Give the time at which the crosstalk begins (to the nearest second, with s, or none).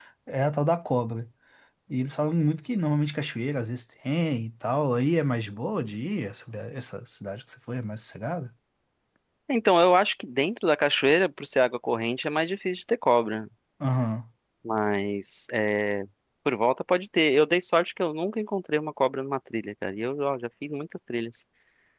none